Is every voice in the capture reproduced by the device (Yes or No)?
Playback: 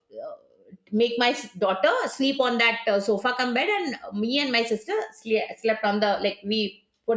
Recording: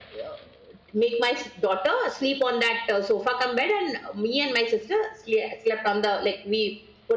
Yes